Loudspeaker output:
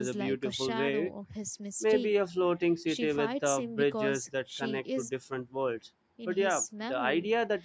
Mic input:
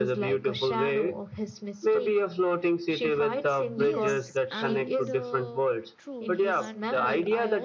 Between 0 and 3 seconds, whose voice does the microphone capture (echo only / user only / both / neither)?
echo only